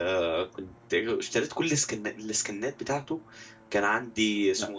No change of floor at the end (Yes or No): Yes